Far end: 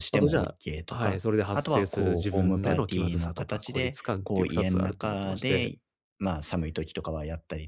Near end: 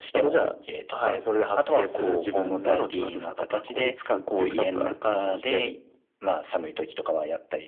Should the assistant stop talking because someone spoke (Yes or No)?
No